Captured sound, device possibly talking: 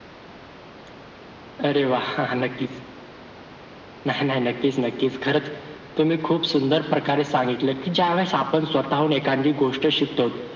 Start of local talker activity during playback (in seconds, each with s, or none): none